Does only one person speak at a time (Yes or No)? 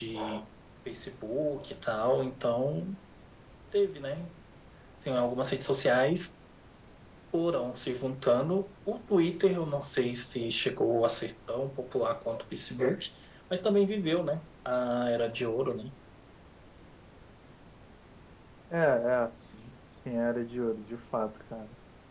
Yes